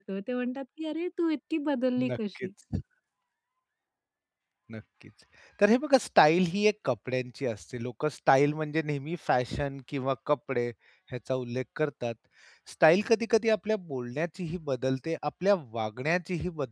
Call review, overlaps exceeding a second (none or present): none